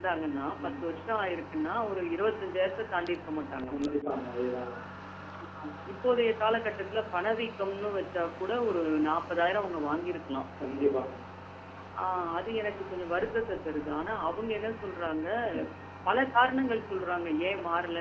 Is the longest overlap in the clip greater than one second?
No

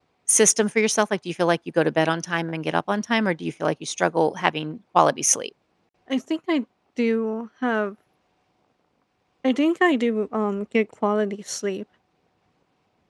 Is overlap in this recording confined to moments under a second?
Yes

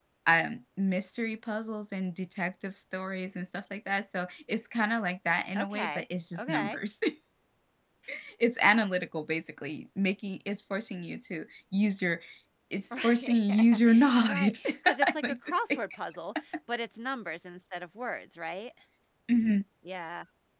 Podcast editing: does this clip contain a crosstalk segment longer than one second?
Yes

